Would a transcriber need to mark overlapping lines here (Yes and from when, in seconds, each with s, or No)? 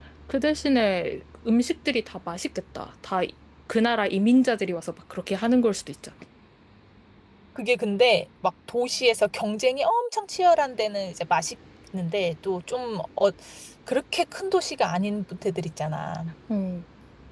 No